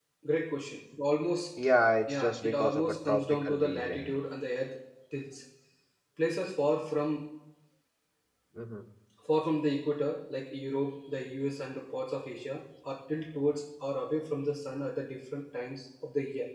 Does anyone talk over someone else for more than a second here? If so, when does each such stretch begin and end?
2.1-4.1

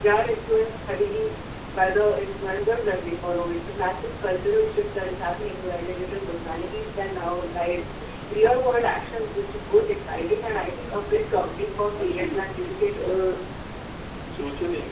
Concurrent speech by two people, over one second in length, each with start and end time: 12.0-13.3

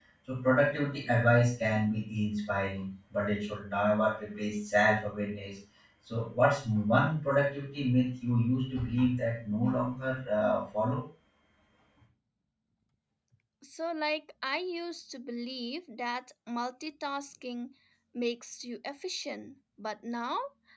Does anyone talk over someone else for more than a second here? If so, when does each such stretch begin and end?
none

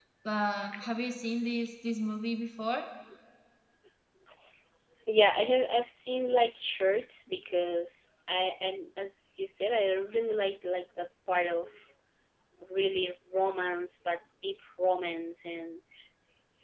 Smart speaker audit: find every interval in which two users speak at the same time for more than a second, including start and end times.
none

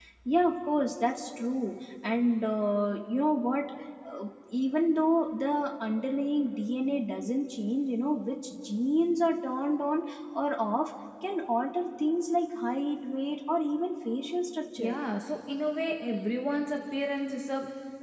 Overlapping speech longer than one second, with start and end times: none

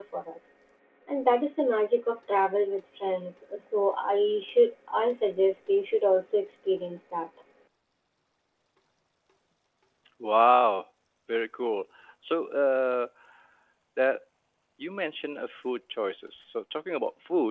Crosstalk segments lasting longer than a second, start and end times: none

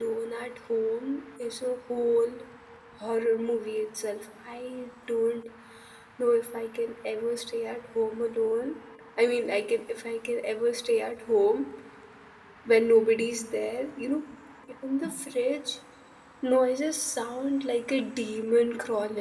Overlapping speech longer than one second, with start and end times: none

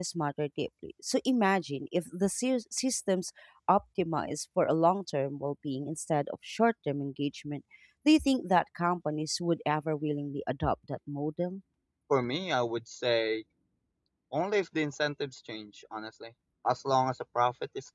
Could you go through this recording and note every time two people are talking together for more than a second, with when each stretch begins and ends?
none

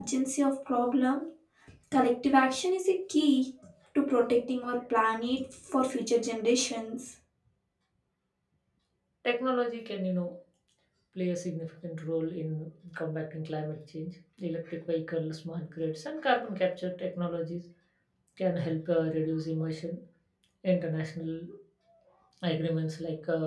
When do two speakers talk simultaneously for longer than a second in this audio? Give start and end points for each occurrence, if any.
none

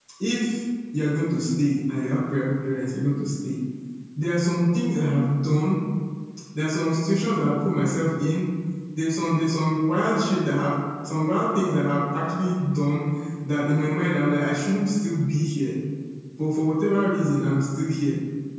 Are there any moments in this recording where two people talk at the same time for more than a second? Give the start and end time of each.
none

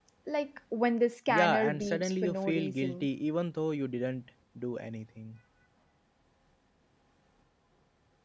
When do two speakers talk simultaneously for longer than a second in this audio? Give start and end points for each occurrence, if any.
1.3-3.1

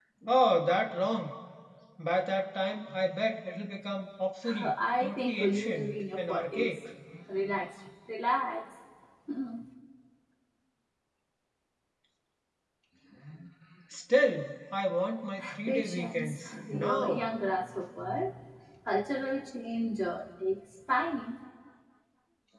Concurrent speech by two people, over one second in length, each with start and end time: 4.6-6.7, 15.7-17.3

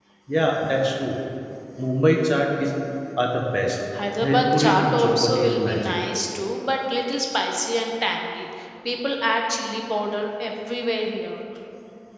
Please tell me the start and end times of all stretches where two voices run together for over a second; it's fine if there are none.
4.2-5.9

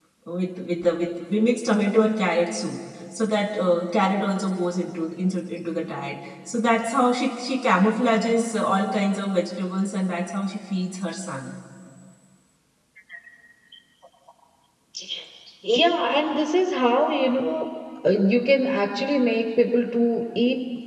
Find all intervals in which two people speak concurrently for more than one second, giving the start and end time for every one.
none

